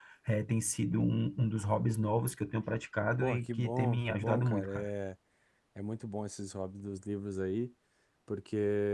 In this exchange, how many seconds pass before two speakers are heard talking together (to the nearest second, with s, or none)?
3 s